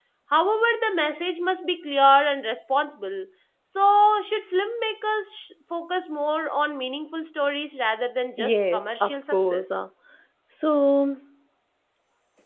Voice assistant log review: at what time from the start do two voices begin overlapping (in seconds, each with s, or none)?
8.4 s